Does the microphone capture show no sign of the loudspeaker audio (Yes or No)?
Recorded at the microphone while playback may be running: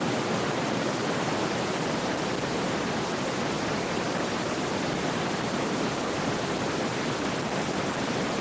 Yes